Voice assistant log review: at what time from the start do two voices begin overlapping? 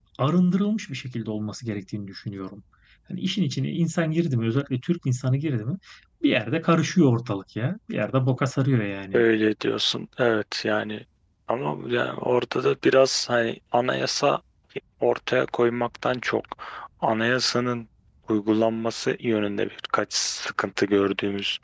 none

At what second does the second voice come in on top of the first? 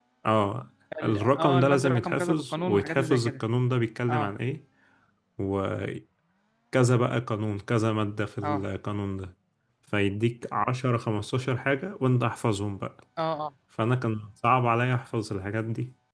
1.0 s

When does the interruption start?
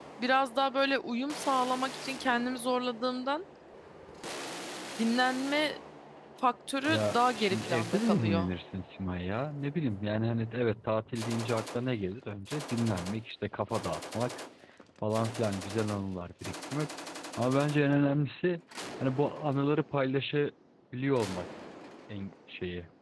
6.9 s

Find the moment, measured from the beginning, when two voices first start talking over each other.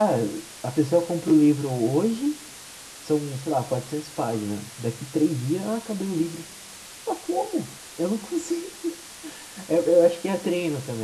none

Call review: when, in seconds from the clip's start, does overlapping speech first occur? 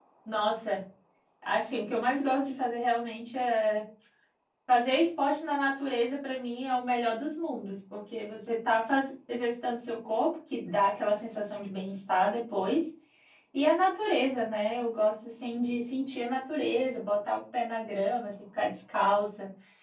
none

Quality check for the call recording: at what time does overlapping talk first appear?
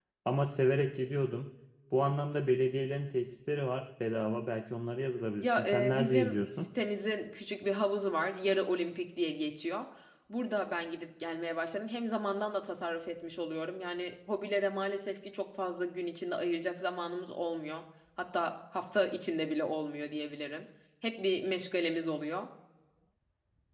5.4 s

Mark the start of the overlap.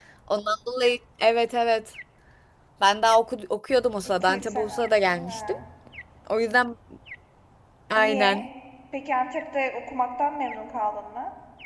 4.2 s

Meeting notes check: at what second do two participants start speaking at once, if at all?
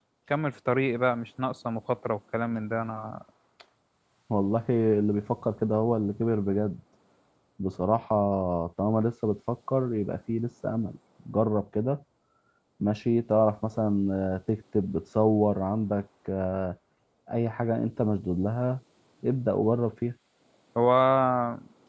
none

